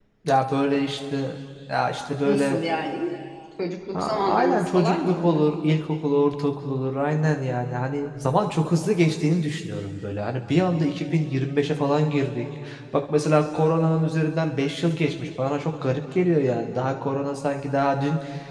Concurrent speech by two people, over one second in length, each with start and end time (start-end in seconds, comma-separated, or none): 3.9-5.4